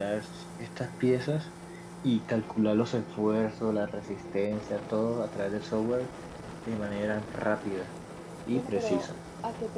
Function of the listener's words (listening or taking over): taking over